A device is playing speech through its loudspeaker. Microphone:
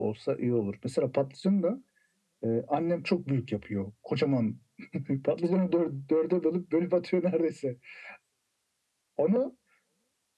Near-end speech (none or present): none